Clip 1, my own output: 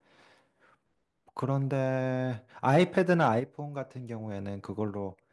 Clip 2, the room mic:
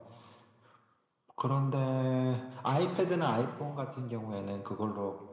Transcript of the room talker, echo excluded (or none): none